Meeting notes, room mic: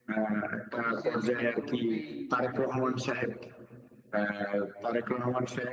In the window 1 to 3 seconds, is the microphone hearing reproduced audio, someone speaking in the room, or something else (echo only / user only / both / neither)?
both